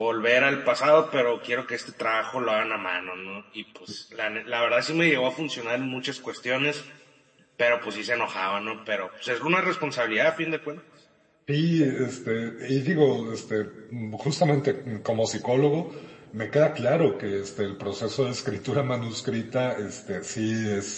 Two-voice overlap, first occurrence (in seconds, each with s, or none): none